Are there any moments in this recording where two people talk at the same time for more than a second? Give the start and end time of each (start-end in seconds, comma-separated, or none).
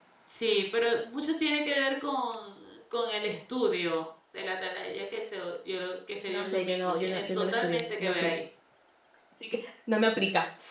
6.3-8.3